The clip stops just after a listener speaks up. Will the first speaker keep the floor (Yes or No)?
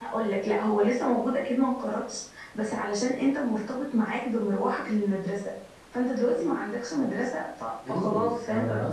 No